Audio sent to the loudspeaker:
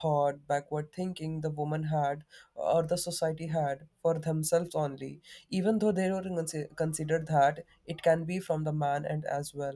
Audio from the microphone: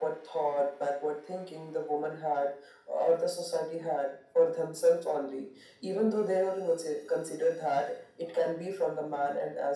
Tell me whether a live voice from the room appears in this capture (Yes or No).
No